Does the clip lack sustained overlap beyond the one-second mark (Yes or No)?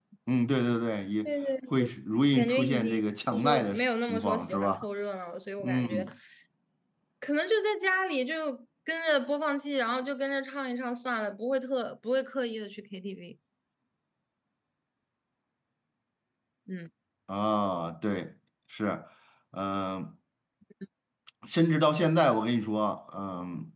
No